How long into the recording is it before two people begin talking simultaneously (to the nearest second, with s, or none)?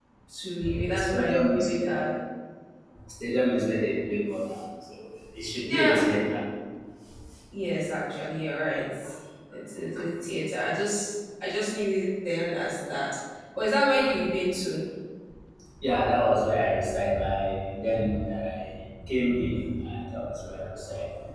1 s